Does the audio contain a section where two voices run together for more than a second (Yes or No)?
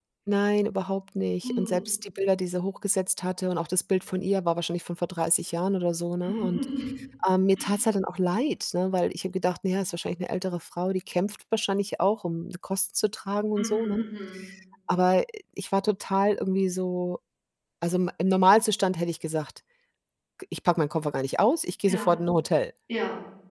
No